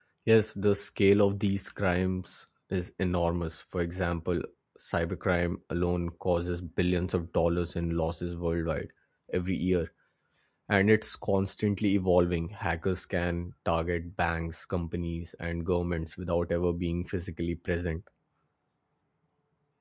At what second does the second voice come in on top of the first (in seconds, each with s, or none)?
none